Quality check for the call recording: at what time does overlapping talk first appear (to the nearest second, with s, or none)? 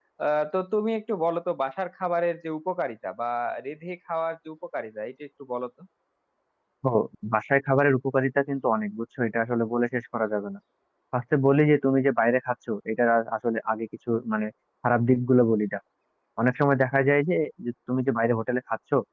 none